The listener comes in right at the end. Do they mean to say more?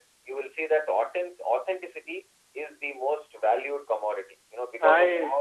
No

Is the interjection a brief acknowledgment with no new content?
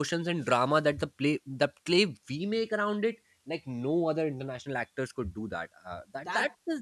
Yes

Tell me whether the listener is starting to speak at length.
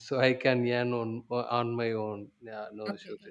Yes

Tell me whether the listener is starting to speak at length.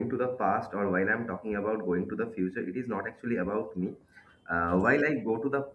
No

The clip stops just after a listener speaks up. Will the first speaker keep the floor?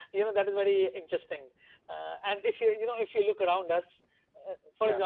Yes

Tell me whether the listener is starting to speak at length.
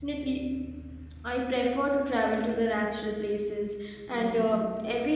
No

